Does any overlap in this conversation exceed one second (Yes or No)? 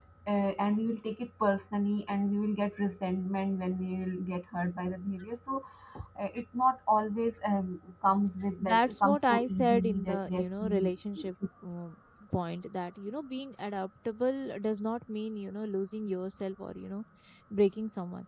Yes